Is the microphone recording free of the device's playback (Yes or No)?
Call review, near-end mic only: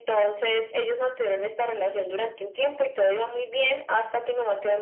No